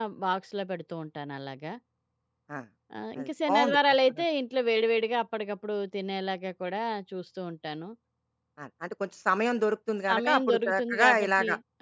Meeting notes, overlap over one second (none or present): present